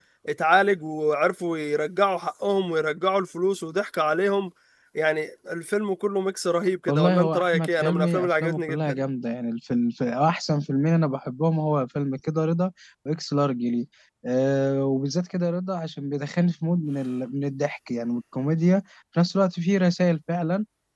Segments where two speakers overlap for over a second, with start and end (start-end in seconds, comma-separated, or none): 6.9-9.0